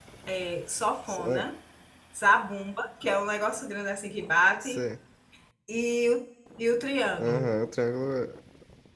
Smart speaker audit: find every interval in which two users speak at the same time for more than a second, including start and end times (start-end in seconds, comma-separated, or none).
none